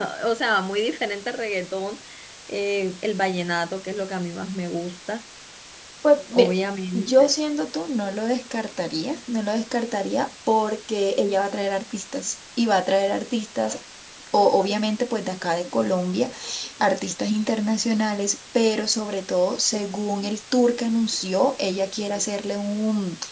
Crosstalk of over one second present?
No

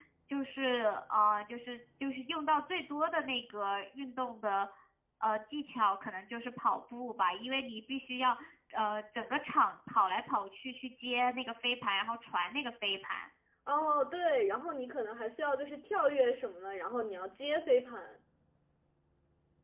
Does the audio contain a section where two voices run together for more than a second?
No

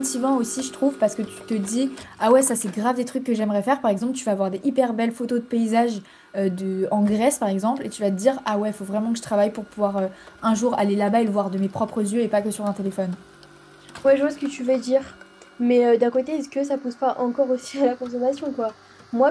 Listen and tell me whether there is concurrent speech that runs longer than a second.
No

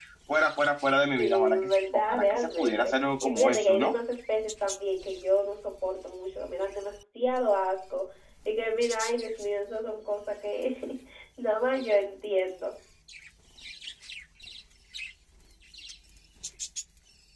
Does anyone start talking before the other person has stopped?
Yes, from 1.2 s

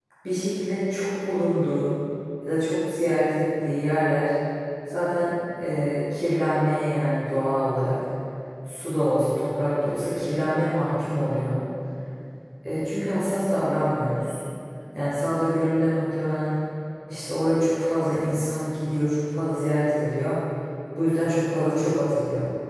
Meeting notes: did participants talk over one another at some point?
No

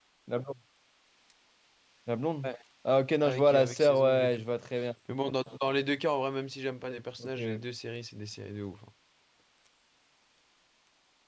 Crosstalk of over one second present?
Yes, from 3.2 s

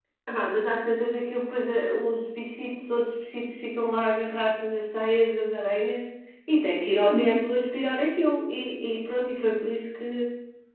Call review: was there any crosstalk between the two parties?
No

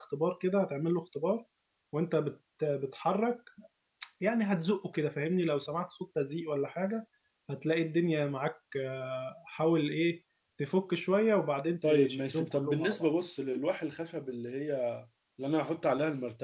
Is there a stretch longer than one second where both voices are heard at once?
Yes, from 11.8 s

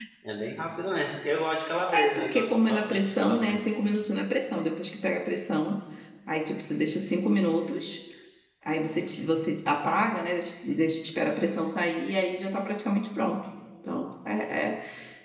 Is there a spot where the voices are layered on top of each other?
Yes, from 1.7 s

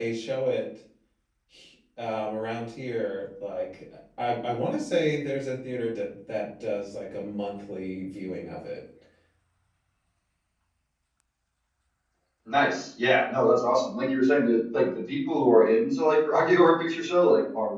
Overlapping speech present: No

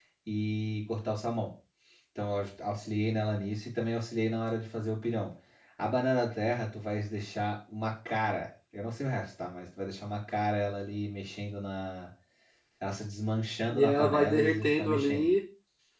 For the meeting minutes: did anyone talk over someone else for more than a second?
Yes, from 13.7 s

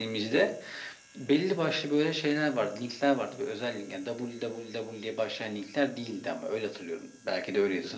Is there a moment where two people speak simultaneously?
No

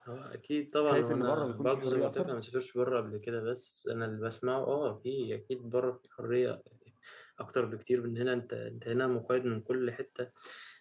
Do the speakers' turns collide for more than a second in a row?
Yes, from 0.8 s

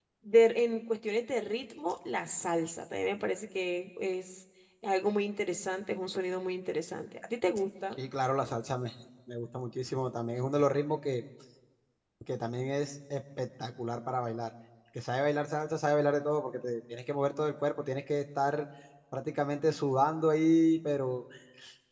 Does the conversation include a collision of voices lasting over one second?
No

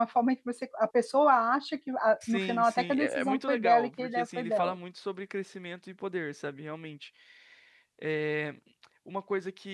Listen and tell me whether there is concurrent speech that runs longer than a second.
Yes, from 2.2 s

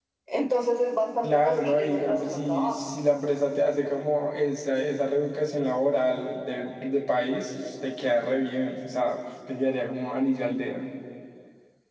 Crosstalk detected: Yes, from 1.2 s

